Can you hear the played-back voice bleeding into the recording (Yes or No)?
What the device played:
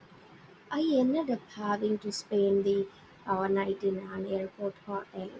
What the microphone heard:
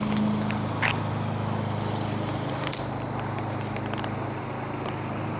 No